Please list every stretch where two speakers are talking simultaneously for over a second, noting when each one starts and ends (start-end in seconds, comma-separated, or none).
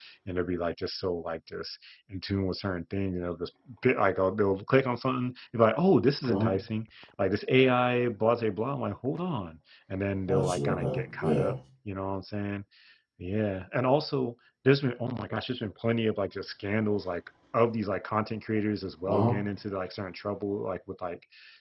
10.3-11.5